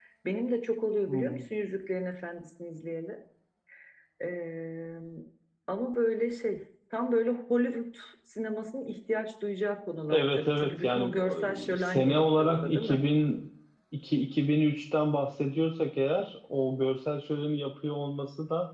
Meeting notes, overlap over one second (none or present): present